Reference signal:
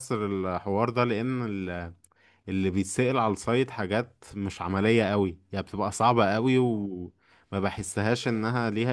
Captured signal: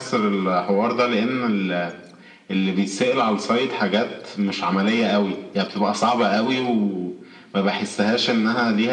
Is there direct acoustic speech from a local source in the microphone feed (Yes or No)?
No